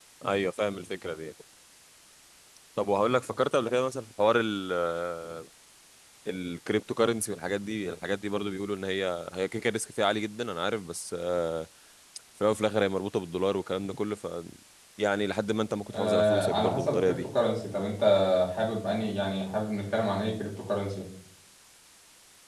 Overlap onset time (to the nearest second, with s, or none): 16 s